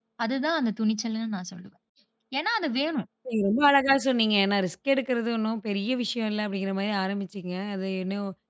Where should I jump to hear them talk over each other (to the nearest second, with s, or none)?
none